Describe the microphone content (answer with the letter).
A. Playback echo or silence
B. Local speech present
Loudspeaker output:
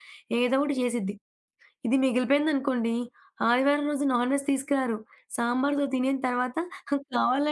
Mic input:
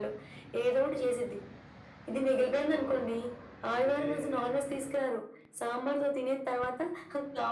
B